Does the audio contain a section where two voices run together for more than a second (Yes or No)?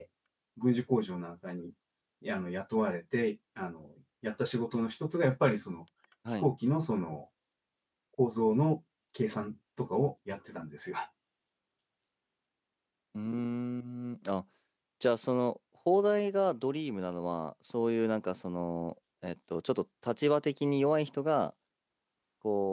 No